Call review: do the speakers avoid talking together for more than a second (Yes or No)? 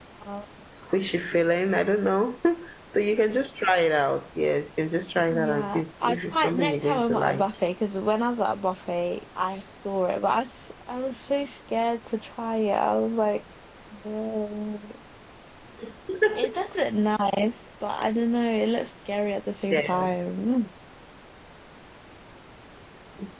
No